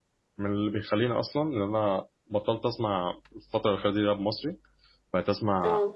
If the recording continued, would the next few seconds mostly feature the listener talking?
No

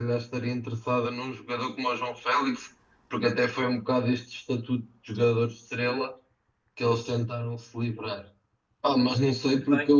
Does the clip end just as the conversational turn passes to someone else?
No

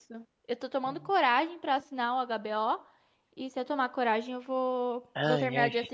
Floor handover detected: Yes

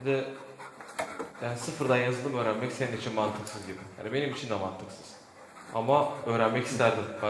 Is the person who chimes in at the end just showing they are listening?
Yes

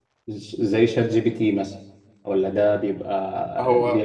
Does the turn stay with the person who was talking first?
Yes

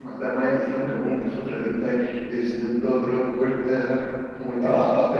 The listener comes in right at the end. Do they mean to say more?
Yes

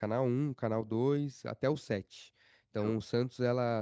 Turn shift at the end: No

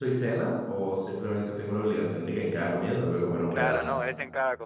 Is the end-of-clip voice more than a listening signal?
Yes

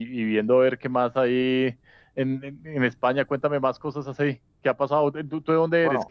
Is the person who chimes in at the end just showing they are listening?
No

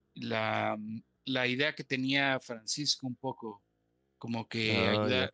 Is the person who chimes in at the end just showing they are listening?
Yes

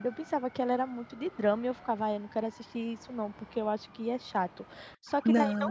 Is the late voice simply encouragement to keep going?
Yes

